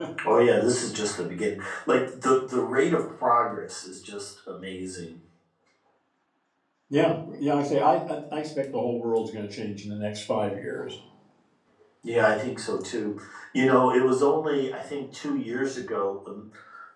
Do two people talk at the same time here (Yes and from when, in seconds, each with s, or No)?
No